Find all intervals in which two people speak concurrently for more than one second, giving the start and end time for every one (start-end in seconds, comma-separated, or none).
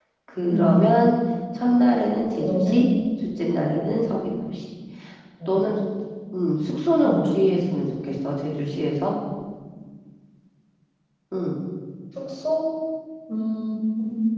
none